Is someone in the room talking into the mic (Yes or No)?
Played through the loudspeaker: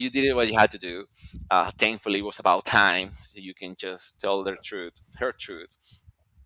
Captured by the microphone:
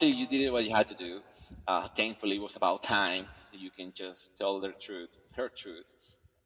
No